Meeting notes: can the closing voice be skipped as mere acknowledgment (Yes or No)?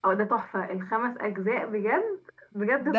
No